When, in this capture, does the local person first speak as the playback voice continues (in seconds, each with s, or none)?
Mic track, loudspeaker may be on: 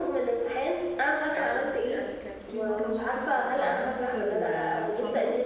1.3 s